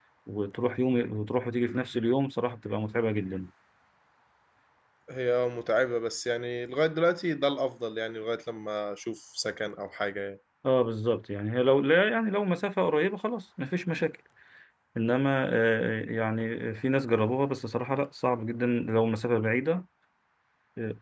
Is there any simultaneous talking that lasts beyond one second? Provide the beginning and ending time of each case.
none

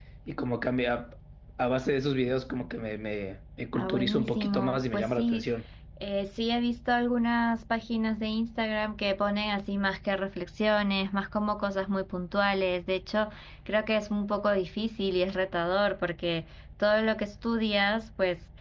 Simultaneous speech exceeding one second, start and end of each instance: 3.7-5.5

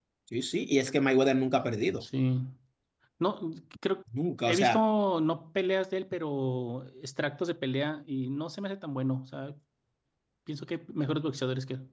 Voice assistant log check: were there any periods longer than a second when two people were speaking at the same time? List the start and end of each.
none

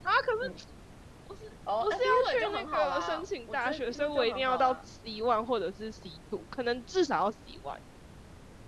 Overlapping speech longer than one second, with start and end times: 1.8-4.8

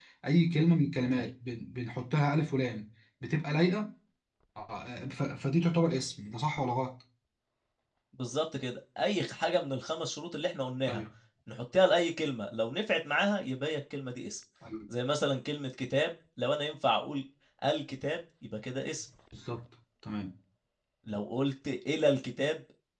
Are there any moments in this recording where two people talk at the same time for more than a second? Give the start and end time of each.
none

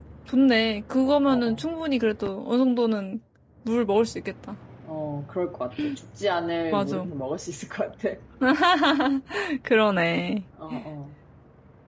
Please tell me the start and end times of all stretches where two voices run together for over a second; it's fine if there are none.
none

